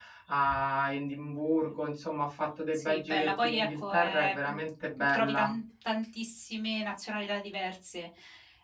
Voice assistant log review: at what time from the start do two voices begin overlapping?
2.7 s

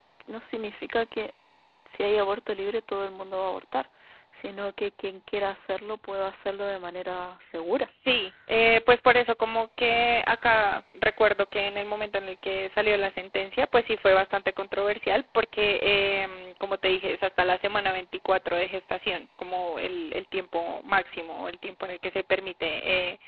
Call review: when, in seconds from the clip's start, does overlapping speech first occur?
none

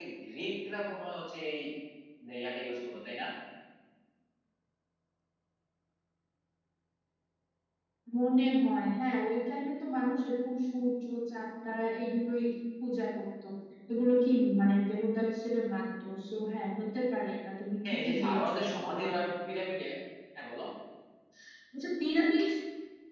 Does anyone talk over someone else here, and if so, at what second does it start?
17.8 s

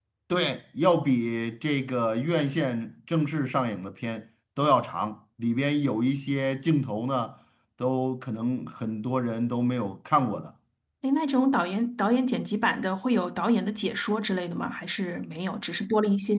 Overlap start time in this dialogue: none

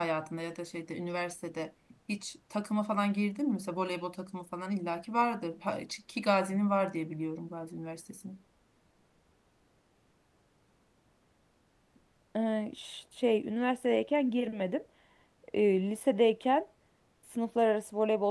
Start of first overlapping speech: none

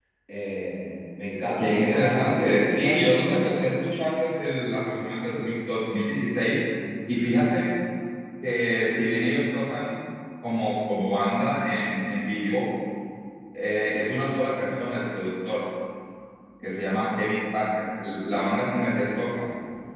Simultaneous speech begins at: 1.6 s

